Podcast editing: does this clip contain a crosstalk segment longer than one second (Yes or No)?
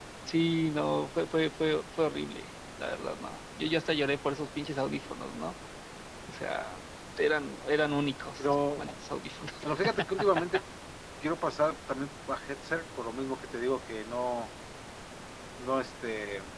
No